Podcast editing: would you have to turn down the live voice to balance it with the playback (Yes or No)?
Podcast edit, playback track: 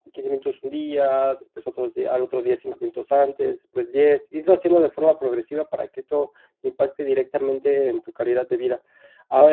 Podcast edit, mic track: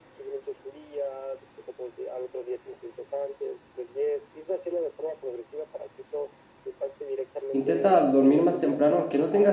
Yes